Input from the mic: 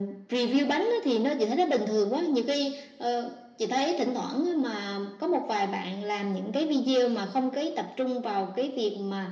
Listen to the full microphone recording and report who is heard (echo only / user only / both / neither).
echo only